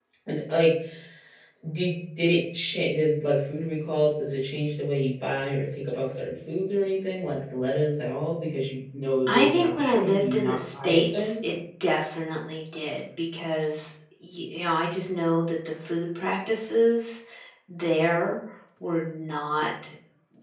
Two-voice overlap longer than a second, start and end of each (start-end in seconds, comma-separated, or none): 9.3-11.3